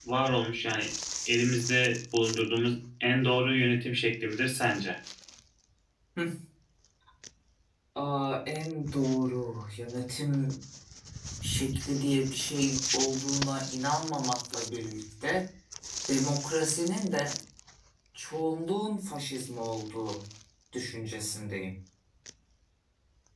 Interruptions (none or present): none